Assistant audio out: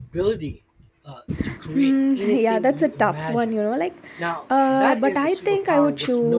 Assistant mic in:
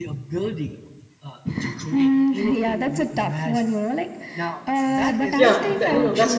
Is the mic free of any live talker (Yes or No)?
No